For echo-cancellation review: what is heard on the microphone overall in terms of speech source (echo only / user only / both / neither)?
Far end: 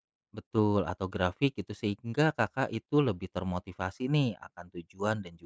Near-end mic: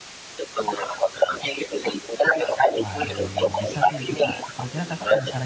both